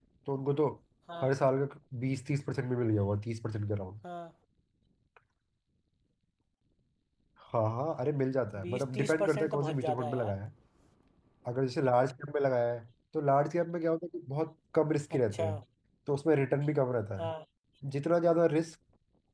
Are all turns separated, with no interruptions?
No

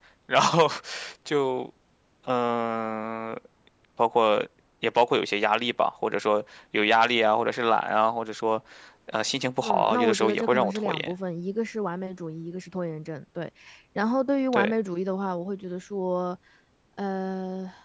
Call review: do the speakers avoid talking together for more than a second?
No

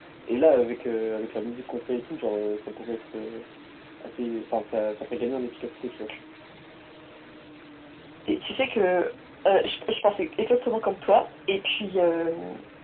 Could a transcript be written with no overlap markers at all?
Yes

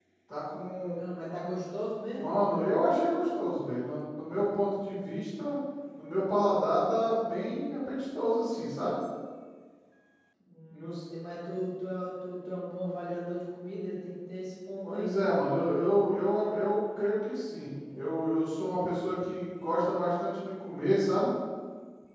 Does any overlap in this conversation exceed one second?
No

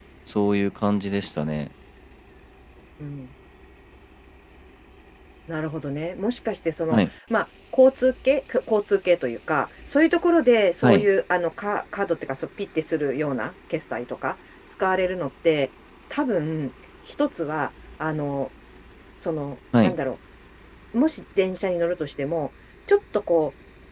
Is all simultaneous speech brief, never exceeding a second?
Yes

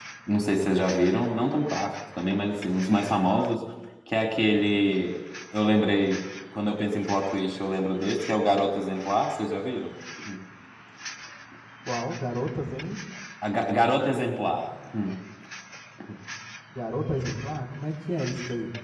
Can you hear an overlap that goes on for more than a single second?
No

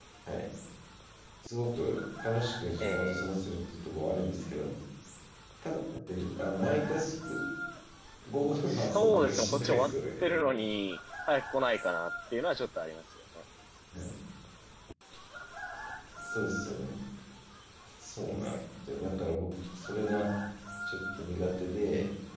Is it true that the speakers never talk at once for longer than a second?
No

